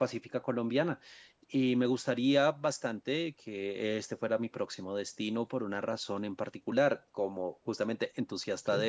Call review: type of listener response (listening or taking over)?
listening